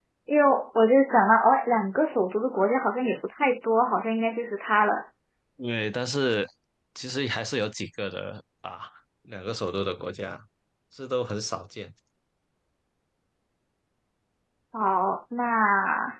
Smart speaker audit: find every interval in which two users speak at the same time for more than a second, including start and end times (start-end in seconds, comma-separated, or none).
none